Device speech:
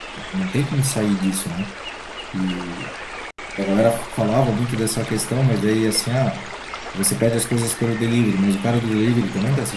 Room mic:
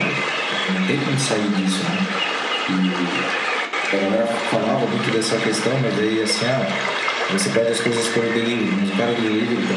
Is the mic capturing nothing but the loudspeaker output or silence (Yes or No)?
Yes